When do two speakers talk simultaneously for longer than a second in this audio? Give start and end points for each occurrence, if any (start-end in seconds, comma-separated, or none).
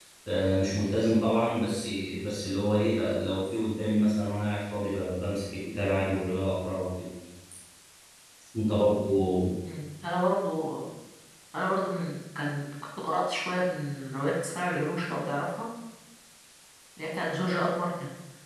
none